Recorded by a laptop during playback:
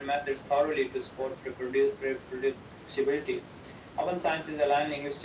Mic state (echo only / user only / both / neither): echo only